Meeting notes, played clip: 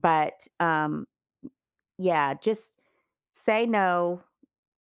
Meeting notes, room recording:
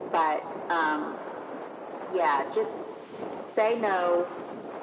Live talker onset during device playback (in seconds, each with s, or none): none